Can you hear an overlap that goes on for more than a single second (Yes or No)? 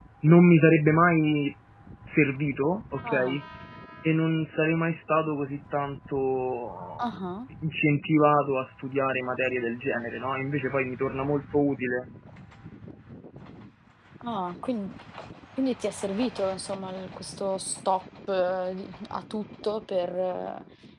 No